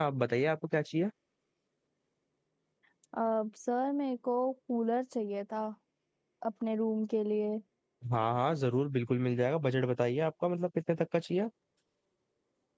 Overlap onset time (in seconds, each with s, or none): none